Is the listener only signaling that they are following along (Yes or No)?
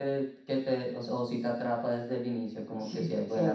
No